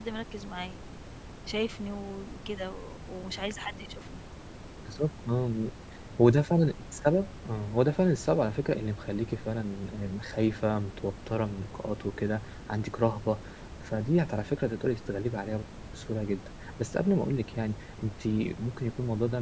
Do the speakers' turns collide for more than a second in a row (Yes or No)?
No